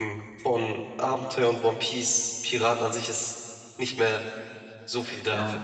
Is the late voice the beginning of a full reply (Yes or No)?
Yes